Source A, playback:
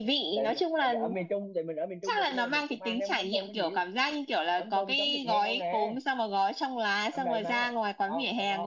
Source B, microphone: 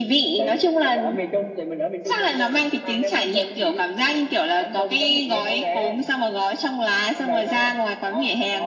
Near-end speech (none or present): none